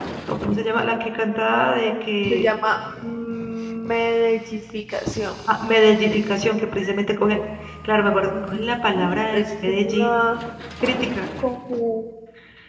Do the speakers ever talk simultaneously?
Yes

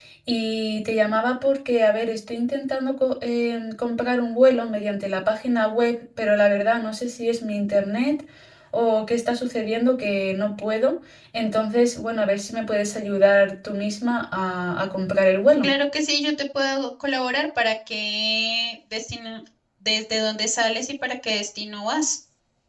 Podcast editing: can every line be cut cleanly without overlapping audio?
Yes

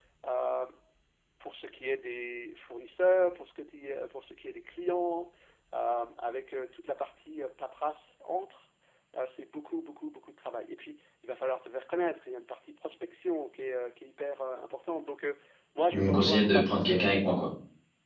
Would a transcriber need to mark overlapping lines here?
Yes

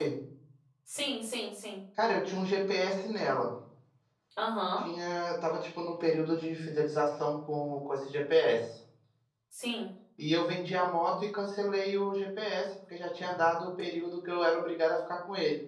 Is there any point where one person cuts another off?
No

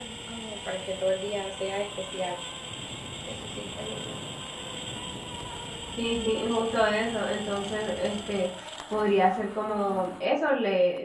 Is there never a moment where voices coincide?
Yes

